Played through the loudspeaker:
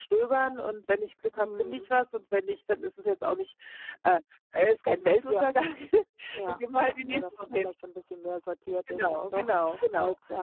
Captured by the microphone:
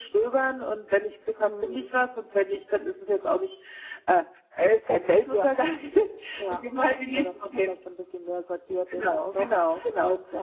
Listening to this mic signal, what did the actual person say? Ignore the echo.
none

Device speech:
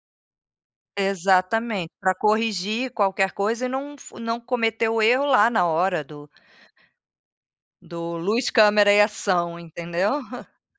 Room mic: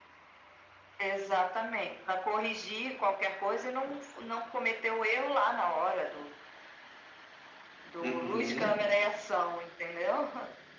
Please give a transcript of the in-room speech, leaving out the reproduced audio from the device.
Uhum.

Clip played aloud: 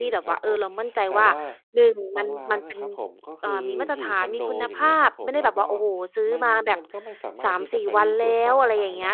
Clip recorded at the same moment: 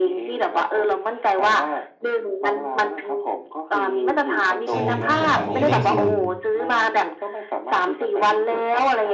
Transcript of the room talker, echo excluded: ใช่ไหมครับผม? อันเนี้ยนี่คือ

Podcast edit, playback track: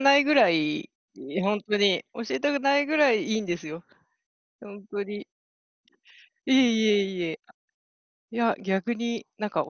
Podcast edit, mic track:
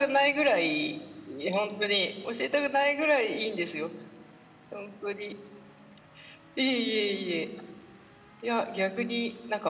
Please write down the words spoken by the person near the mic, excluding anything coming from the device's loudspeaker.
none

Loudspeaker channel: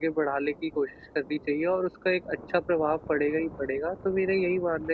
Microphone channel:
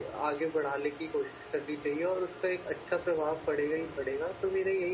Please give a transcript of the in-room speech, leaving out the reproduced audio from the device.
none

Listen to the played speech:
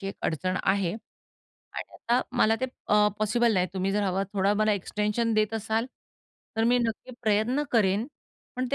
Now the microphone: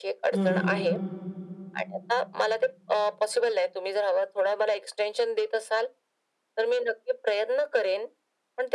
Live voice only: हं, हं.

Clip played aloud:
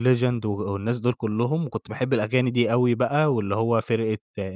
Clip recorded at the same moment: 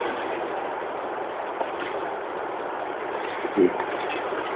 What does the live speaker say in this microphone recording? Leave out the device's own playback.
اهم.

